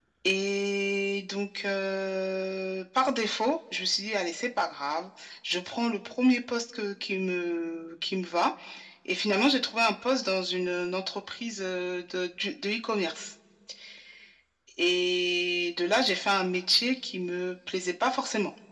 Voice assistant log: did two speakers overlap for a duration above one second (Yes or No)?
No